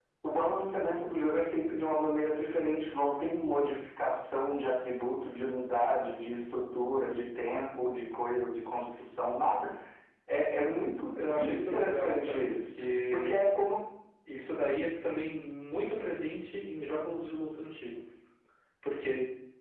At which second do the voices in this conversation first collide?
11.2 s

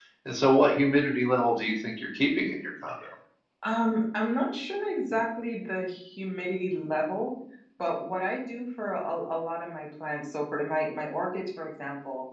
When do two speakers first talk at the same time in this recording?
none

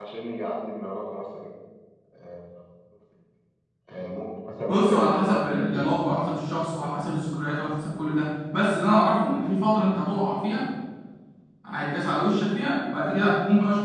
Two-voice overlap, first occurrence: 4.7 s

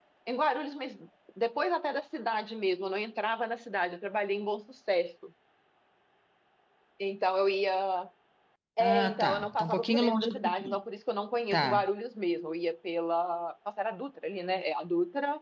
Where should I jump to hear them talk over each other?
8.8 s

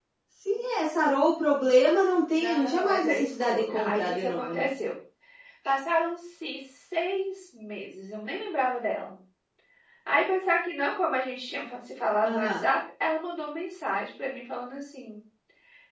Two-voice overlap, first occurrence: 2.3 s

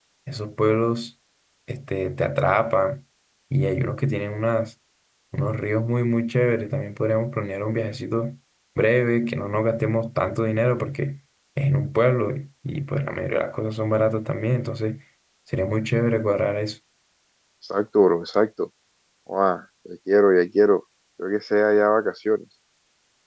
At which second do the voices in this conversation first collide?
none

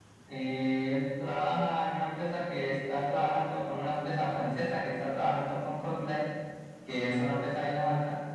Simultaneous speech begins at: none

